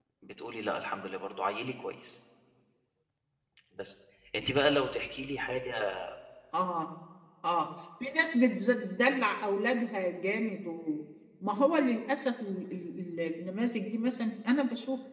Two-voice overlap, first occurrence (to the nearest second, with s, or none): none